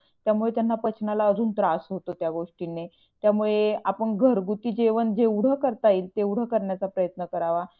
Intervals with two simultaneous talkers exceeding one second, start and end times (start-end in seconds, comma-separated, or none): none